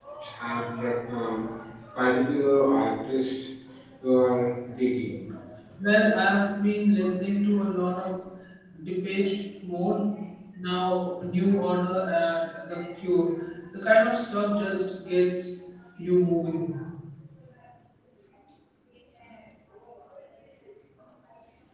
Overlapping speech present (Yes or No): No